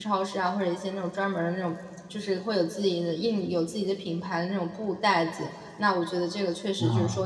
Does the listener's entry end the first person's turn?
No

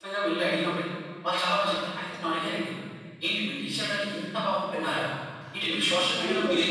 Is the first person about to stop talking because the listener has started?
Yes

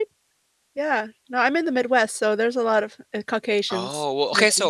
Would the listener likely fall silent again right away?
No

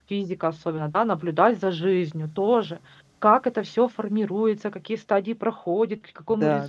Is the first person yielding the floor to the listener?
No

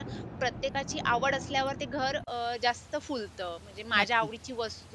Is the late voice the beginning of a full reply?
No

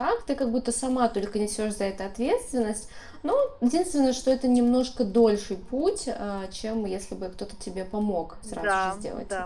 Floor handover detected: Yes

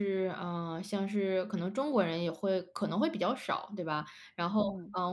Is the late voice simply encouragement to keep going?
Yes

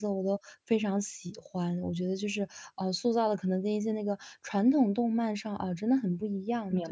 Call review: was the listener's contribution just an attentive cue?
No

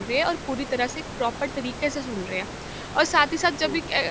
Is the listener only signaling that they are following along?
Yes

